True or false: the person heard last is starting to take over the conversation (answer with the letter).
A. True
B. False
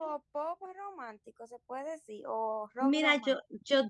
A